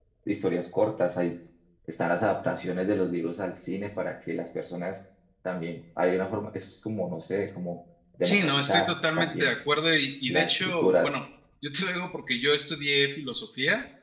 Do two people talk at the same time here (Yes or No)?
Yes